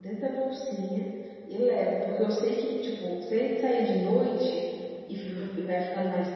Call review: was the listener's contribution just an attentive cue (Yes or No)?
Yes